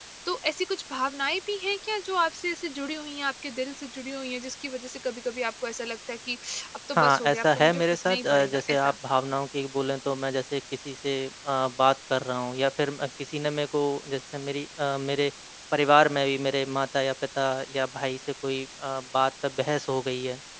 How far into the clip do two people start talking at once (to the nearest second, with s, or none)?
7 s